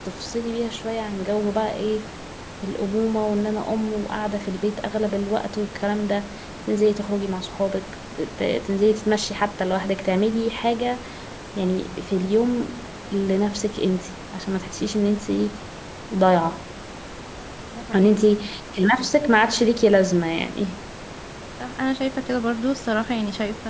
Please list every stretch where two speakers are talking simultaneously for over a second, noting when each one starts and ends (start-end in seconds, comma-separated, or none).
none